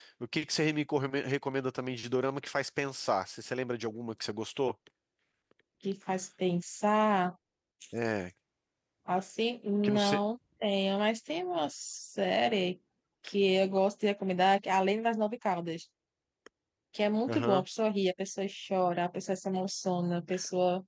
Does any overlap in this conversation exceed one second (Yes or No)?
No